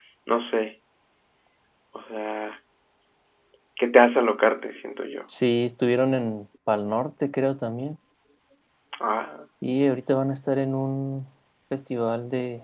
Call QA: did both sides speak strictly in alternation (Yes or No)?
Yes